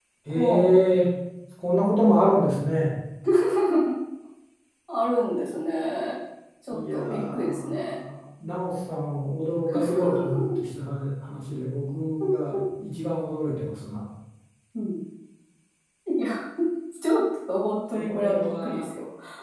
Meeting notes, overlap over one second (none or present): present